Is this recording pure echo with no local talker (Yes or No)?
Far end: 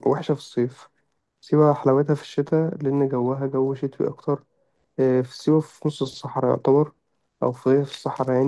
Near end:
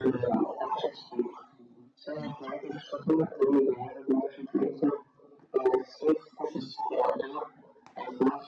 Yes